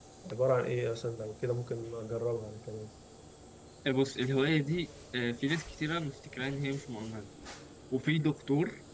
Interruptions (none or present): none